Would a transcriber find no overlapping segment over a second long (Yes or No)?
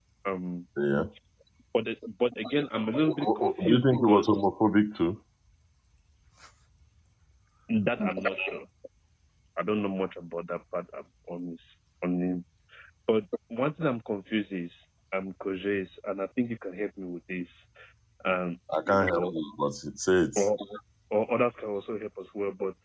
No